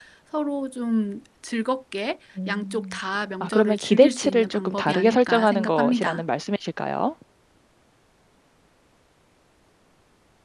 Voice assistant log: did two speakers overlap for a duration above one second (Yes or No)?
Yes